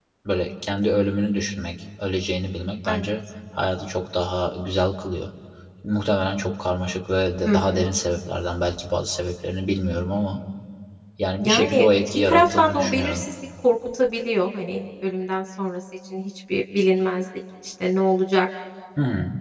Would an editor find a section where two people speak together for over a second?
Yes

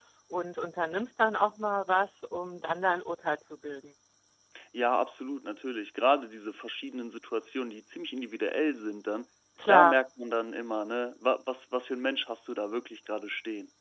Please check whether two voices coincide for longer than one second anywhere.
No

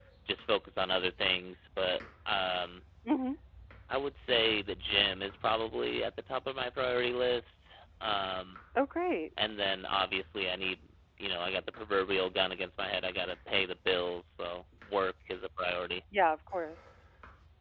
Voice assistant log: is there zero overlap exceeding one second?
Yes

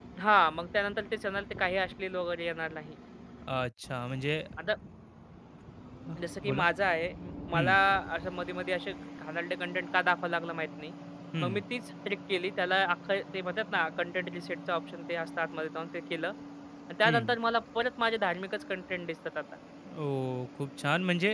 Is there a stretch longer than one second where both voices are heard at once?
No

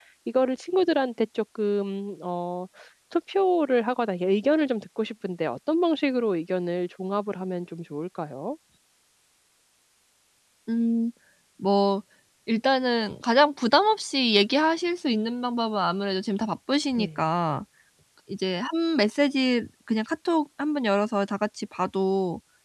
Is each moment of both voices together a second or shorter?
Yes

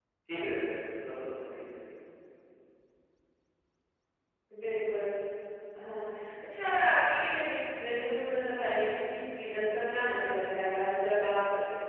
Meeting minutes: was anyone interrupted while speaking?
No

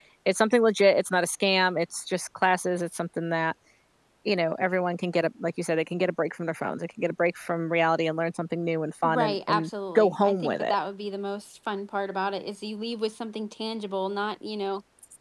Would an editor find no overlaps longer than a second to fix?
No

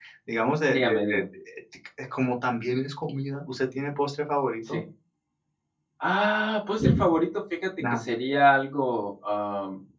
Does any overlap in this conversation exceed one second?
No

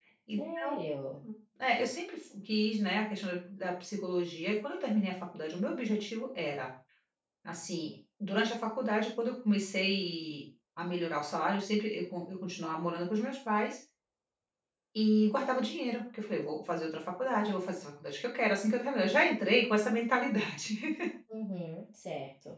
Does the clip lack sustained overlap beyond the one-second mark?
Yes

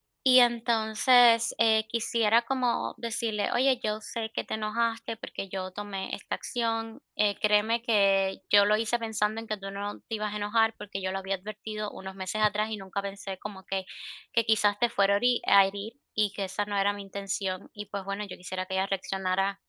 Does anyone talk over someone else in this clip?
No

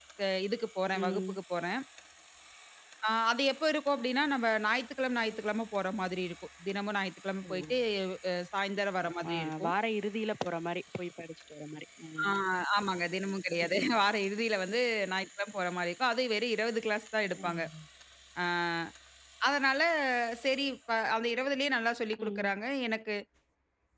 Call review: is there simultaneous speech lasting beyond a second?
No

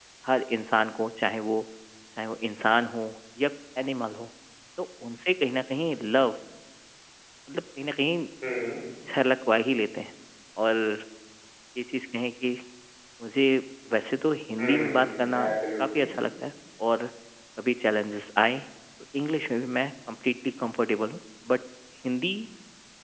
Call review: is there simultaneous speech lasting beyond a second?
Yes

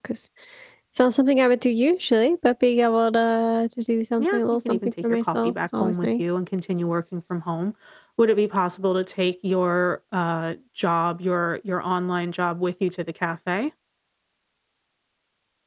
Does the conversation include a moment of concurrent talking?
Yes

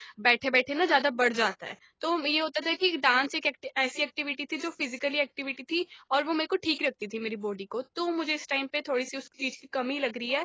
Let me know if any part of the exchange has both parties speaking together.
No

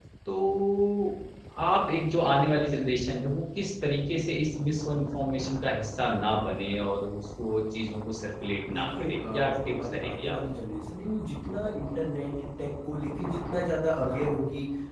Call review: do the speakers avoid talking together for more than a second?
No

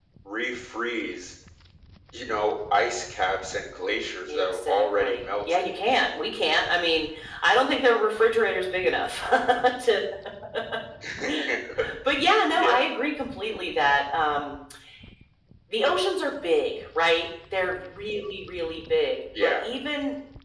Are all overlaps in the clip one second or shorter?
No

